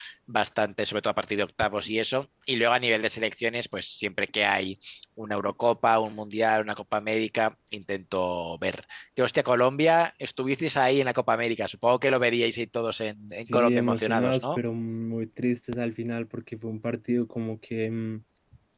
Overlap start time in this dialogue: 13.3 s

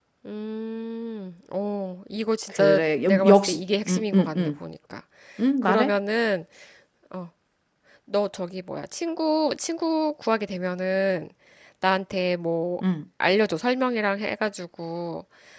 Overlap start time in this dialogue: 2.5 s

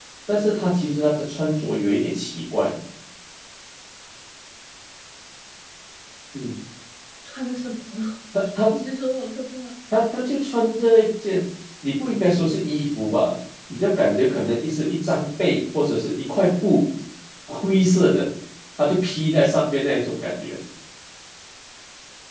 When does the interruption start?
none

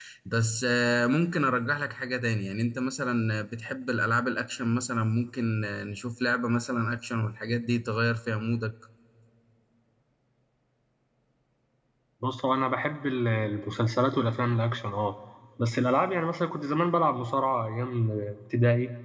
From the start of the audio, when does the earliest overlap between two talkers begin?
none

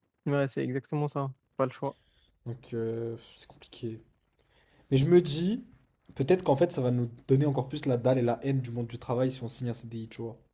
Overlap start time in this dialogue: none

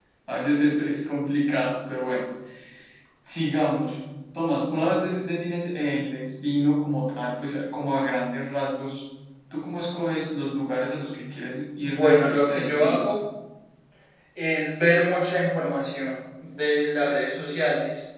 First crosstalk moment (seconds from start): 11.8 s

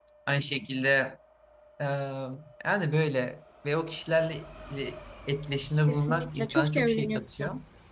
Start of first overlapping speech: 5.9 s

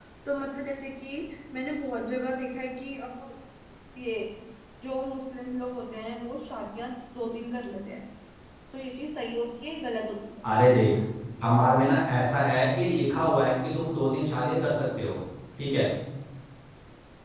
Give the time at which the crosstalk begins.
none

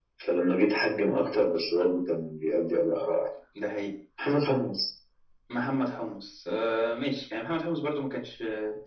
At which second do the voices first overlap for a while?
none

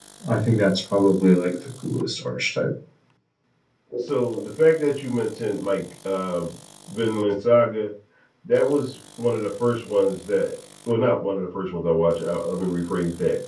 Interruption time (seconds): none

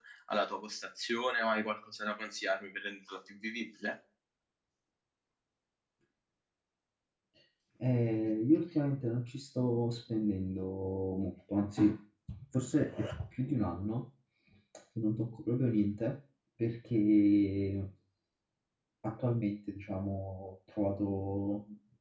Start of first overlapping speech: none

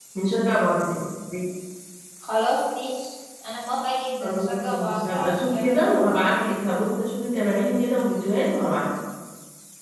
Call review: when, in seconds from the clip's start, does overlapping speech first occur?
4.2 s

